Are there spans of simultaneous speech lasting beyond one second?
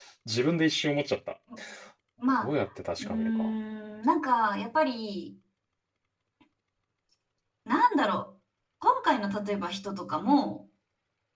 No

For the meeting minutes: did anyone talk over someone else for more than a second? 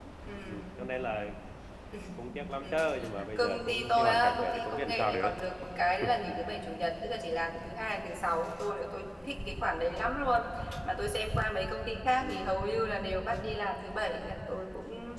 Yes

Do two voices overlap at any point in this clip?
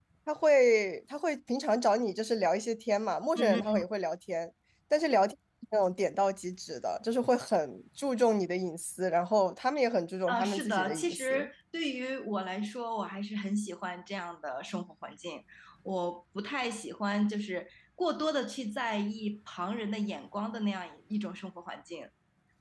Yes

